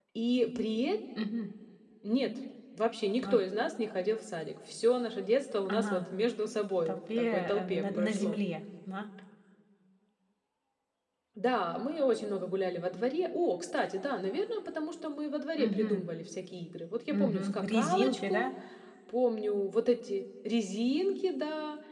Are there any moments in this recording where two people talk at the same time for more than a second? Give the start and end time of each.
6.9-8.4, 17.2-18.4

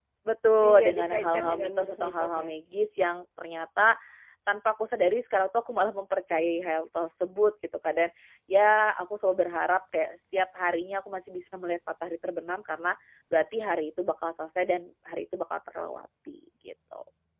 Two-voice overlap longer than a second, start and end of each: 0.7-2.5

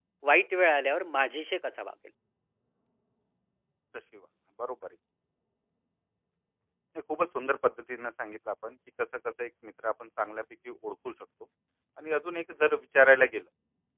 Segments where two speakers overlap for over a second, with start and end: none

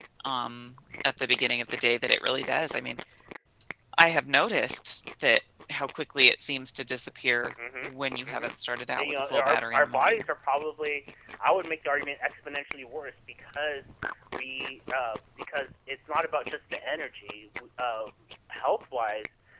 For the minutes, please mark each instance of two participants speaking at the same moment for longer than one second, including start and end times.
9.0-10.2

